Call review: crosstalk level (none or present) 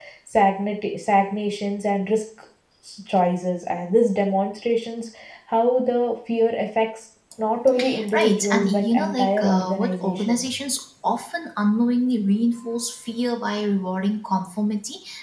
present